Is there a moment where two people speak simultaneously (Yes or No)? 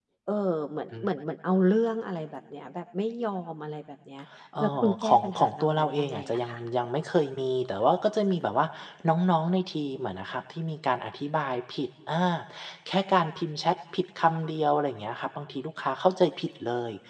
Yes